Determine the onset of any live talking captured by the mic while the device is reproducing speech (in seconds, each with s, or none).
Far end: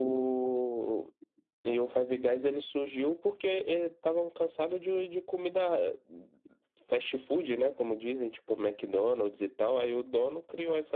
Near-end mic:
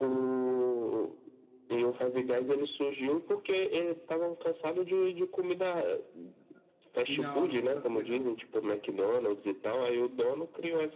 7.1 s